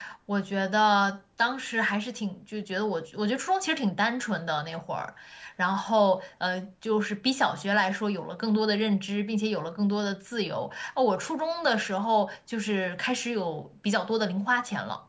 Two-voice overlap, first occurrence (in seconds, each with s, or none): none